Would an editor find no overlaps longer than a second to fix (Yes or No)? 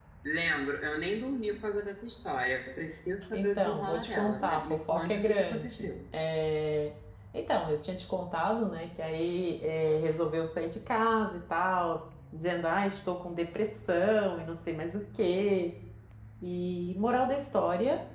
No